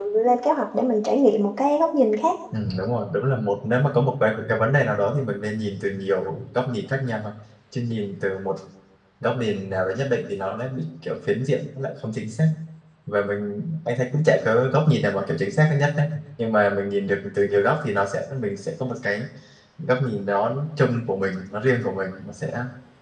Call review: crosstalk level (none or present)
none